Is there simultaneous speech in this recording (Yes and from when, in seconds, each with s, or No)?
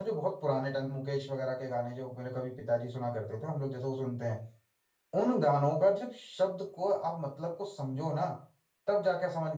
No